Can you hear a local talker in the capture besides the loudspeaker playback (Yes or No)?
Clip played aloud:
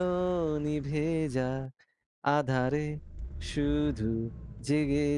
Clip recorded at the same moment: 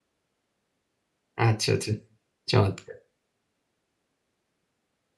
Yes